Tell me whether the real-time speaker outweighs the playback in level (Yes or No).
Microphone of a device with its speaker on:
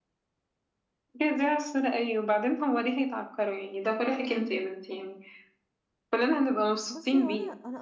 No